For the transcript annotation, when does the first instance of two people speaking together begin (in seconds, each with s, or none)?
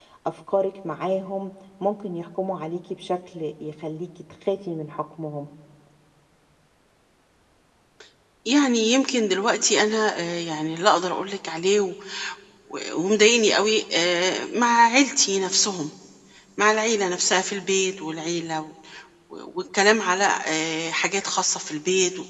none